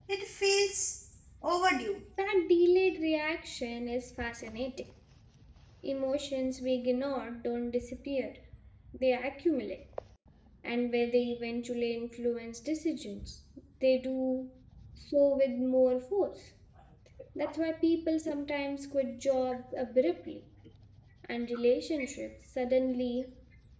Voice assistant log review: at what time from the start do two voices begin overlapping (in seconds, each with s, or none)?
none